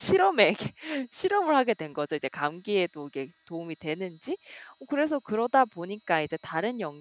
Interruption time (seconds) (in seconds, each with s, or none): none